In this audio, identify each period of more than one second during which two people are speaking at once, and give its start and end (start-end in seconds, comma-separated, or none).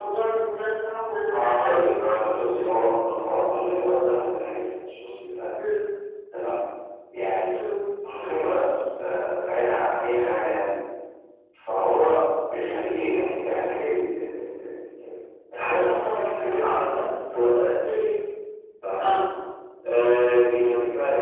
1.3-2.5